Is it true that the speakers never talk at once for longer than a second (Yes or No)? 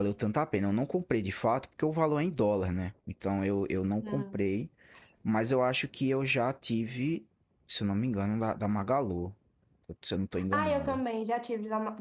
Yes